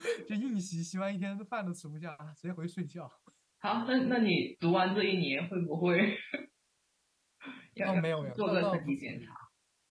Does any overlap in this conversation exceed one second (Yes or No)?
Yes